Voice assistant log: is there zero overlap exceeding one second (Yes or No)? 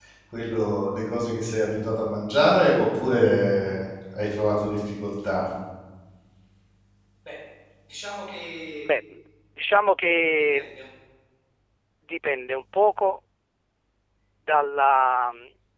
Yes